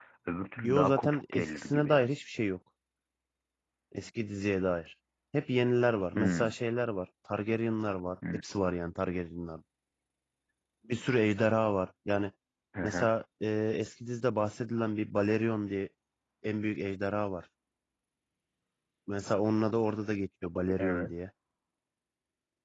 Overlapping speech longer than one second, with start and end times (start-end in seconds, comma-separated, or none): 0.7-2.0